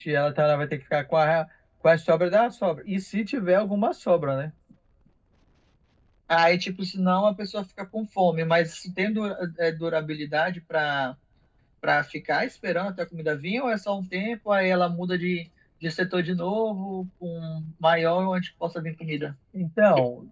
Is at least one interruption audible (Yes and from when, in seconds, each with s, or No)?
No